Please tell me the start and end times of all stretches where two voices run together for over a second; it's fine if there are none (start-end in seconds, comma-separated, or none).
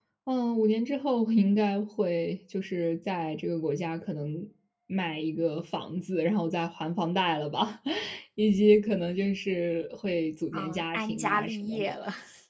10.5-11.9